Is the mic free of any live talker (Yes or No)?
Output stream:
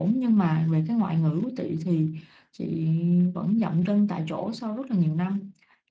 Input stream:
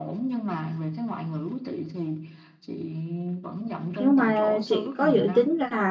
No